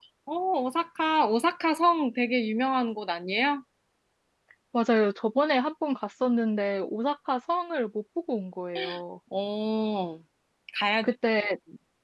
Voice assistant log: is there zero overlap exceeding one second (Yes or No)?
Yes